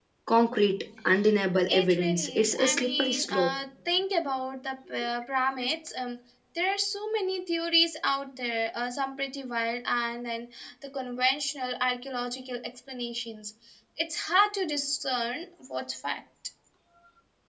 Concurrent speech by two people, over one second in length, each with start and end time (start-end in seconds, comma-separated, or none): 1.7-3.5